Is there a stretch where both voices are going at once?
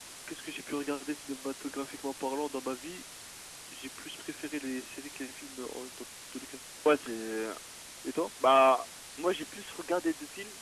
No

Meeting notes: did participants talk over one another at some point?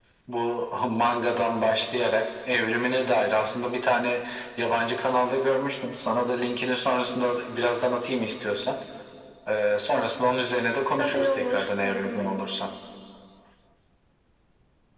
Yes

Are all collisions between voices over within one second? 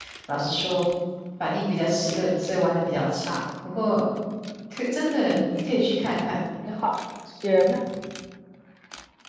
Yes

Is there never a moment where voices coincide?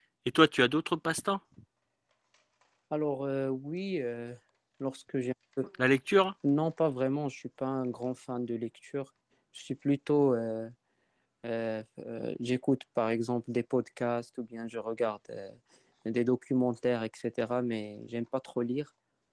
Yes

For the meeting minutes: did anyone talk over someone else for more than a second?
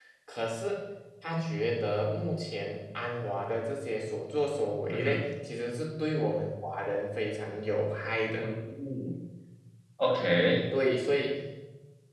No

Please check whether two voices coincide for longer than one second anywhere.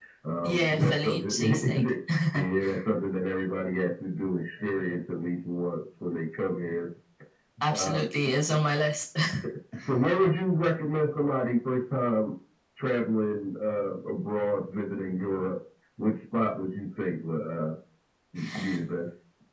Yes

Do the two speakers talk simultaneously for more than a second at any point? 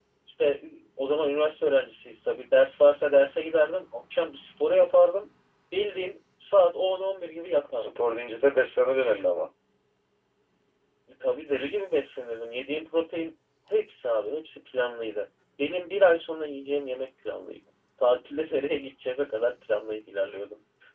No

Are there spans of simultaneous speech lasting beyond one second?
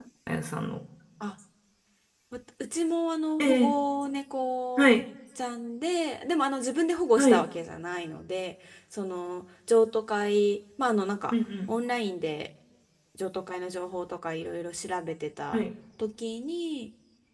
No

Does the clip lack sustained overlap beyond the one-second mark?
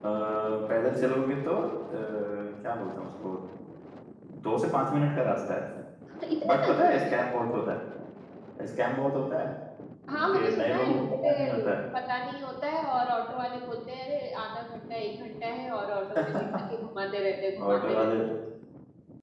No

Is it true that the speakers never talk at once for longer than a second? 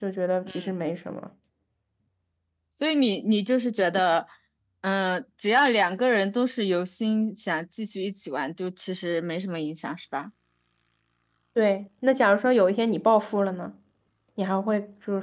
Yes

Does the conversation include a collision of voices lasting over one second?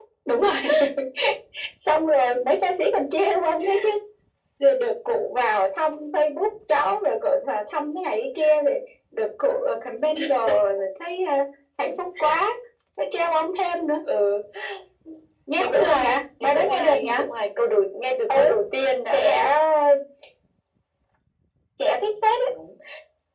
Yes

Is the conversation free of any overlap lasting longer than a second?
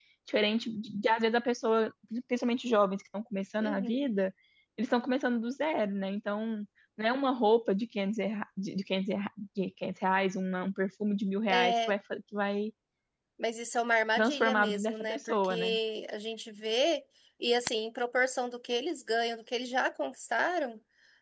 No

